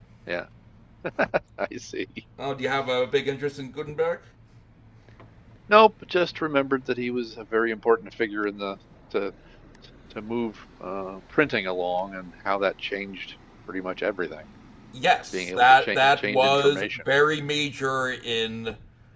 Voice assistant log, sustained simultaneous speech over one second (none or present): present